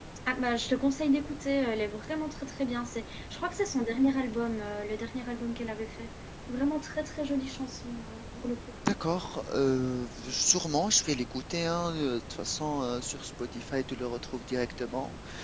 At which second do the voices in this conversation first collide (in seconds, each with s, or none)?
none